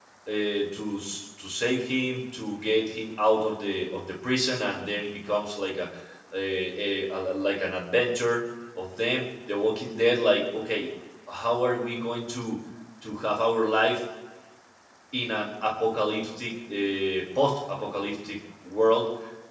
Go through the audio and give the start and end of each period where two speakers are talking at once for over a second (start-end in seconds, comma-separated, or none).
none